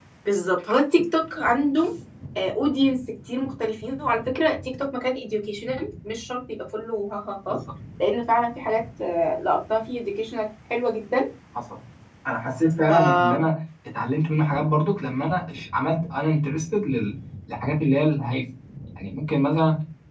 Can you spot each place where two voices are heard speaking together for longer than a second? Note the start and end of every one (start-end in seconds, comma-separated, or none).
none